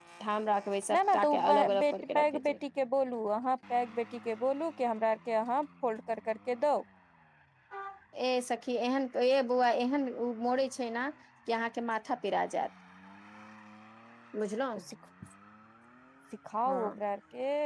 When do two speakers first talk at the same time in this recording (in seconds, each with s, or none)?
0.9 s